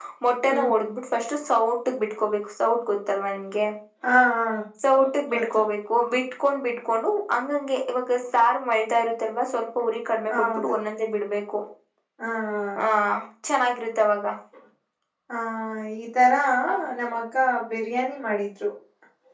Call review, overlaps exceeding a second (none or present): none